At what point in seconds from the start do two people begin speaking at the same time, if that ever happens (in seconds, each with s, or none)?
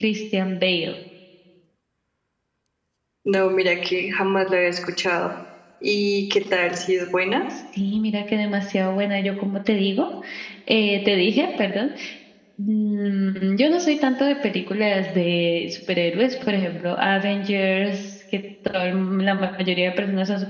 none